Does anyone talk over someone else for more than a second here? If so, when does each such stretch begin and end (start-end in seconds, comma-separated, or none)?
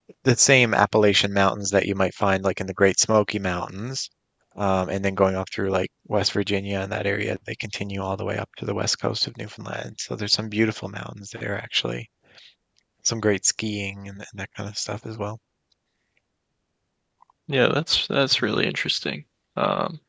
none